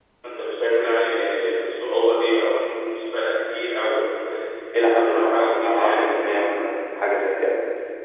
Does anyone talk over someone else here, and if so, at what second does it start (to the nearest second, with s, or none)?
5 s